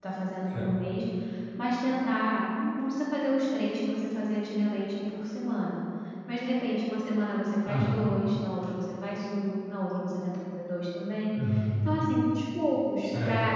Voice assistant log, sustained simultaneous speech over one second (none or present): none